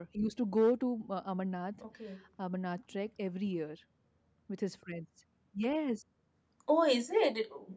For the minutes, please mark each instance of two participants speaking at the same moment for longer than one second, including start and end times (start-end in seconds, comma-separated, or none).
none